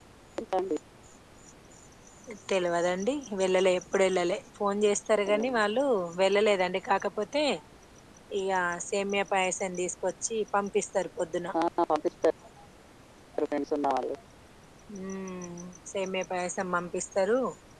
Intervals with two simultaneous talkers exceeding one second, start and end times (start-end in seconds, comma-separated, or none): none